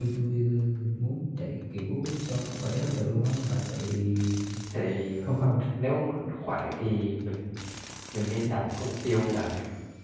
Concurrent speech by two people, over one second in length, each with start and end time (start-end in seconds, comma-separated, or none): none